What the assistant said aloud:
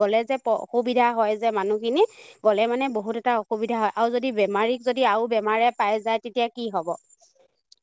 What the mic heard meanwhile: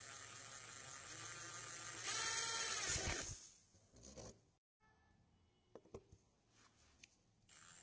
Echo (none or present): none